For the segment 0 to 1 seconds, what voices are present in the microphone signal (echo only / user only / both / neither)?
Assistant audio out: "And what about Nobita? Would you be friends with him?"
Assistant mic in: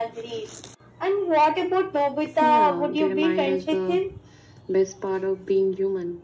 echo only